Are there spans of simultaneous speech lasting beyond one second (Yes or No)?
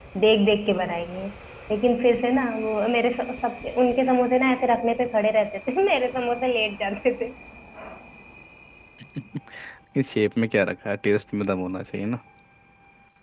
No